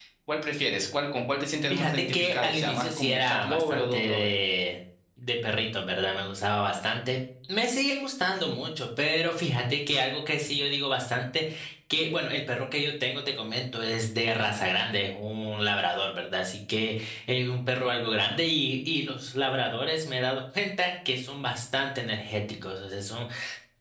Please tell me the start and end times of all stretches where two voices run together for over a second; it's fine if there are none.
1.7-4.3

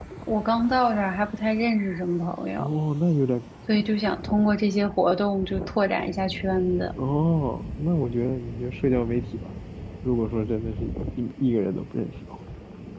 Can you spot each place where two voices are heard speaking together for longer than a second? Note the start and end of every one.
none

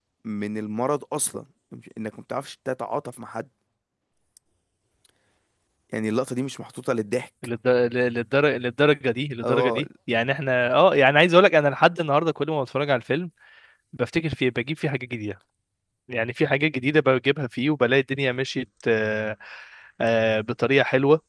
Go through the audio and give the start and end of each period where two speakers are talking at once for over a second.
none

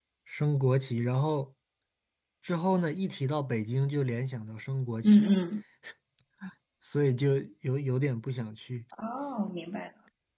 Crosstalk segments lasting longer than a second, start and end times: none

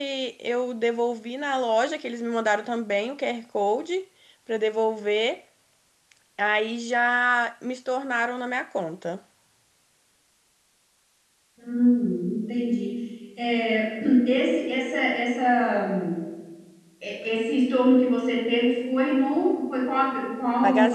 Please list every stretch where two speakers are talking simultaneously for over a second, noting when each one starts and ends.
none

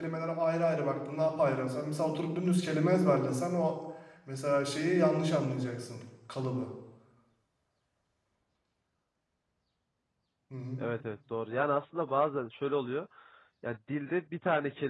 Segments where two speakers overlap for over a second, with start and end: none

